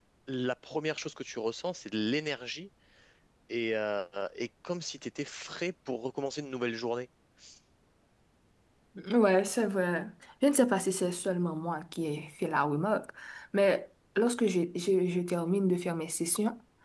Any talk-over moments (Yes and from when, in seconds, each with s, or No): No